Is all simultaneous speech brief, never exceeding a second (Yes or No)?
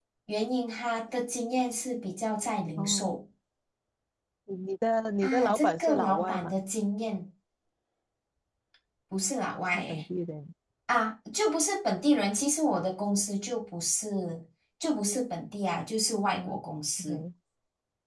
No